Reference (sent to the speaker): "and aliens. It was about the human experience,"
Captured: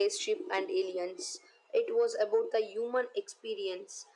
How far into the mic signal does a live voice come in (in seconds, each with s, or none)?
none